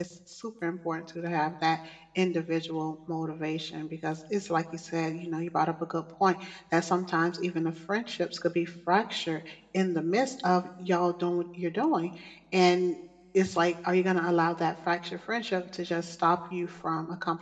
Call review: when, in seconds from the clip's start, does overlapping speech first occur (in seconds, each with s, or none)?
none